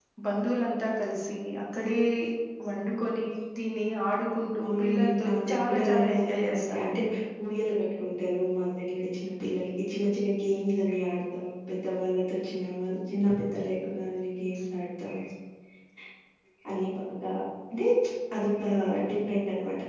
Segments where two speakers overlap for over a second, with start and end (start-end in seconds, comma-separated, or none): 4.6-7.0